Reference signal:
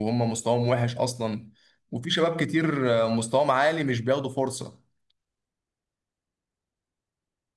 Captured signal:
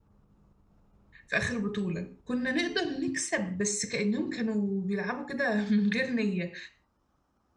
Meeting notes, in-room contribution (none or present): present